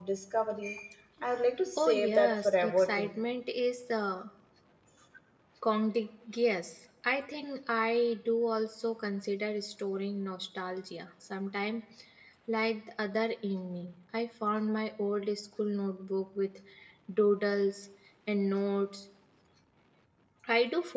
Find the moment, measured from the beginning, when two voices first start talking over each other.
2 s

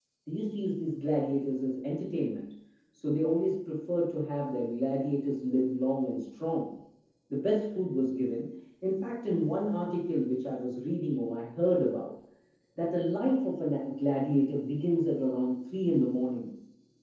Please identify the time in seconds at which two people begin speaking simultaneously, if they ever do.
none

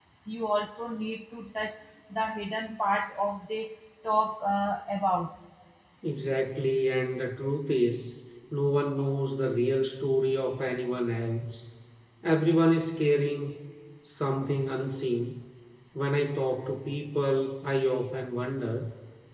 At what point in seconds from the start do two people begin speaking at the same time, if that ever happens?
none

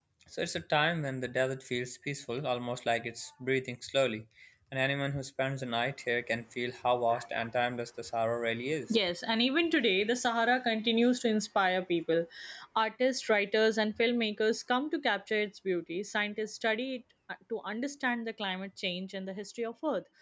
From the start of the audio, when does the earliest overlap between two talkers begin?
none

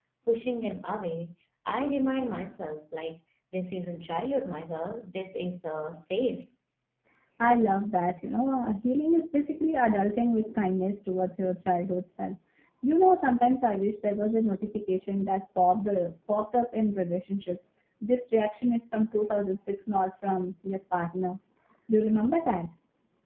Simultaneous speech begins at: none

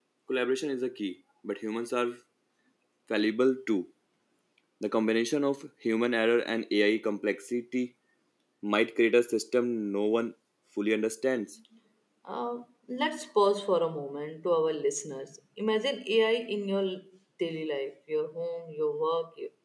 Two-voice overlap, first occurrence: none

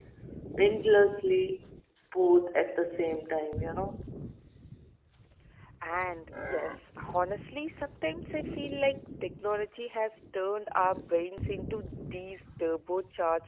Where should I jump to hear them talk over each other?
none

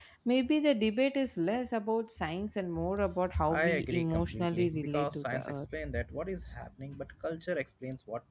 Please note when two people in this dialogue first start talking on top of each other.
3 s

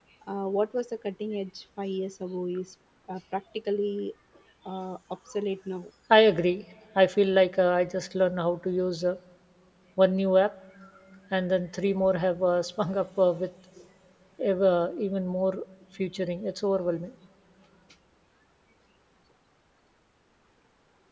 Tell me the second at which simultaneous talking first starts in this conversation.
none

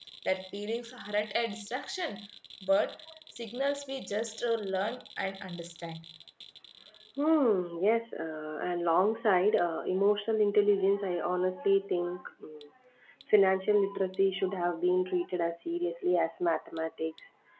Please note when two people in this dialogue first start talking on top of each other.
none

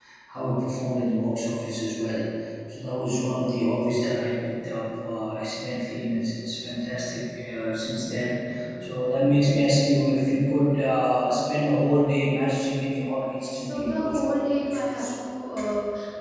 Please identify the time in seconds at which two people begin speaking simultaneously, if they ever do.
13 s

